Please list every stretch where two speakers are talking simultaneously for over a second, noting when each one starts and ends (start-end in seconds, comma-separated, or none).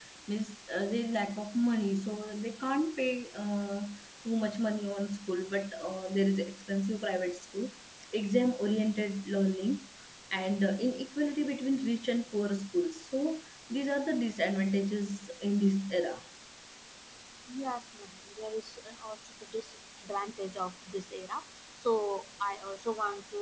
none